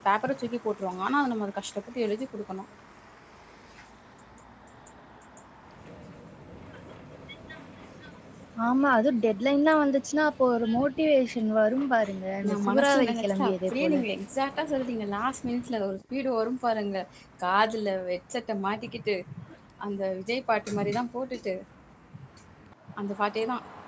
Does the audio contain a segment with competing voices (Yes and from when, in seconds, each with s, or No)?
Yes, from 12.5 s